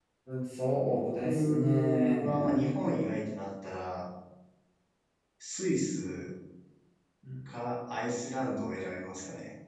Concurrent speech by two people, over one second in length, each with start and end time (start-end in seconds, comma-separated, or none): 0.9-2.6